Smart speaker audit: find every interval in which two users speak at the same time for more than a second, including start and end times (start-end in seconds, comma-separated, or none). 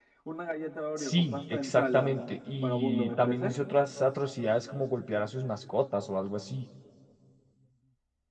1.0-3.5